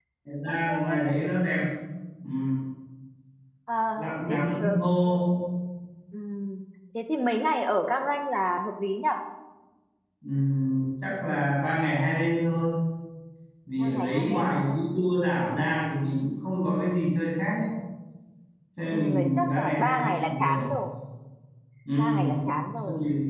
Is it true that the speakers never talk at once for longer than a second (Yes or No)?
No